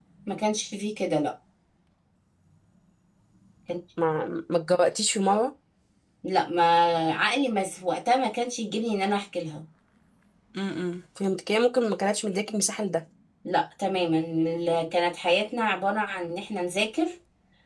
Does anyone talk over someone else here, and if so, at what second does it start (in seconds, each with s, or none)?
none